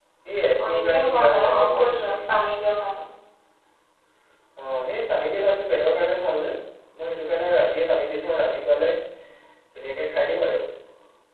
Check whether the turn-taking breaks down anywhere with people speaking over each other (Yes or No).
Yes